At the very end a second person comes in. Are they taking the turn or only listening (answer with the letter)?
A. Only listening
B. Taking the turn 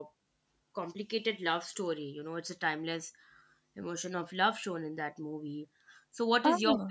A